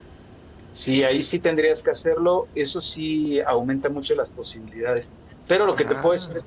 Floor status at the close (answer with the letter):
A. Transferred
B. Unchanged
B